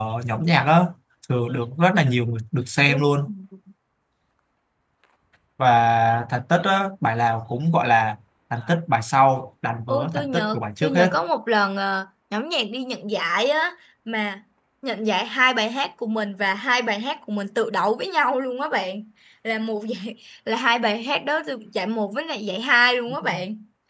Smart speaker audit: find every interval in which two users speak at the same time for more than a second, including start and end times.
9.9-11.1

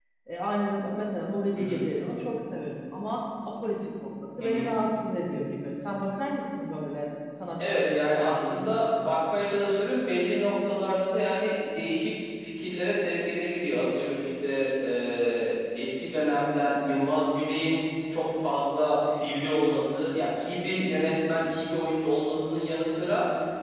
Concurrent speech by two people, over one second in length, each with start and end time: 7.6-8.8

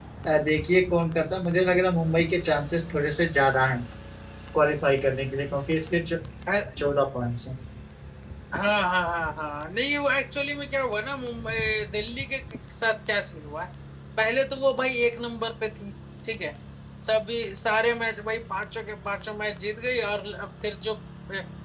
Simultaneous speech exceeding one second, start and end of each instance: none

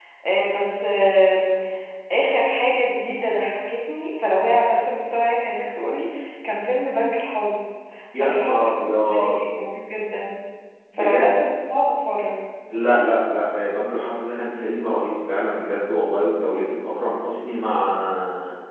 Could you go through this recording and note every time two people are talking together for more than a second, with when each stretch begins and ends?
8.2-9.4

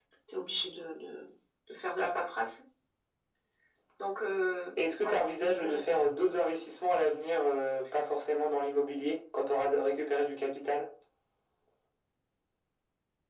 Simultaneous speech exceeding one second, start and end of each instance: 4.8-6.0

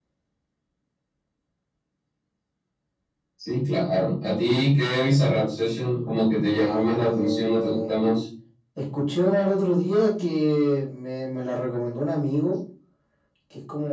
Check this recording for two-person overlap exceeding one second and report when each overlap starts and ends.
6.5-7.9

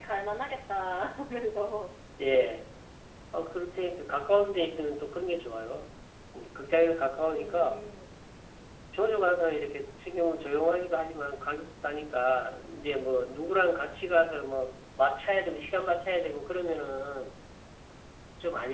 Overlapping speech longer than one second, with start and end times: none

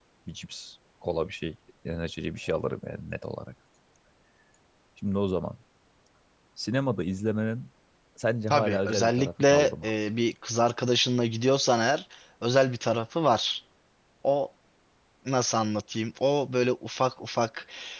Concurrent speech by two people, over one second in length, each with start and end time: 8.5-9.9

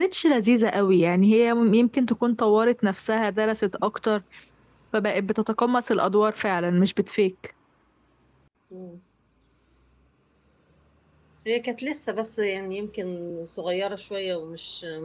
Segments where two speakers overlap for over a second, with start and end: none

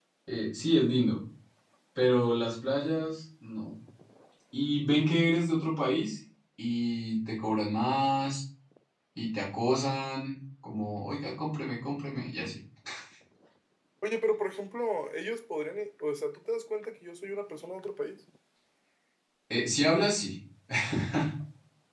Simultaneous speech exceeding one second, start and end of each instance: none

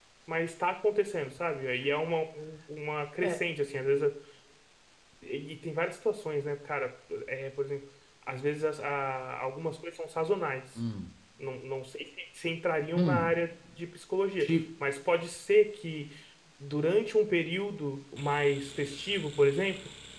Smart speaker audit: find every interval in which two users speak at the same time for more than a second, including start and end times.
none

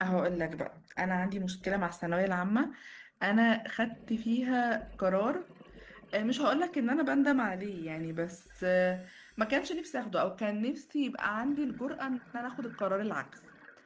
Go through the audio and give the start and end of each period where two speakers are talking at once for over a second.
none

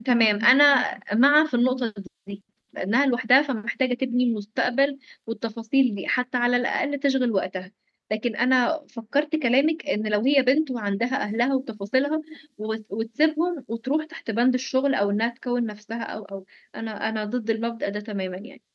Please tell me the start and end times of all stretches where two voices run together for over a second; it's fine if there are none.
none

